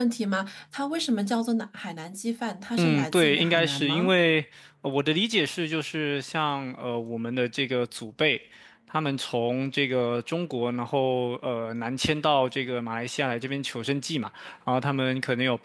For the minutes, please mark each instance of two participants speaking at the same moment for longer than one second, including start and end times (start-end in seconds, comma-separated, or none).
2.8-4.1